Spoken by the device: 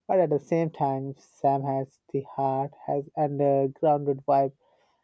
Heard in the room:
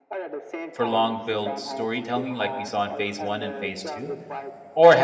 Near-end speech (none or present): present